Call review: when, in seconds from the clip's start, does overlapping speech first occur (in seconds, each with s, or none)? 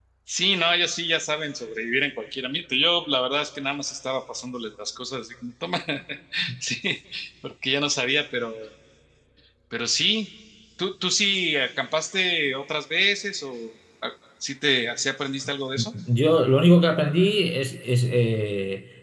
none